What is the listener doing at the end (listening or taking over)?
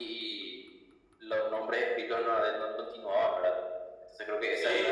taking over